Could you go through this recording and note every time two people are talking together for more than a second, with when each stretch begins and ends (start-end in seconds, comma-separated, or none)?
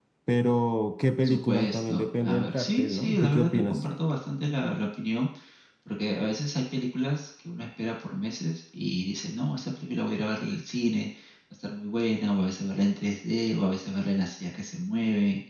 1.2-3.8